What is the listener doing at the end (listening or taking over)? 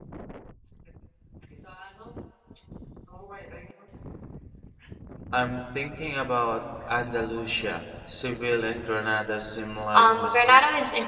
taking over